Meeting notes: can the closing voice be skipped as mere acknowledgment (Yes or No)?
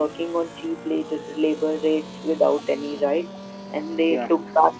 Yes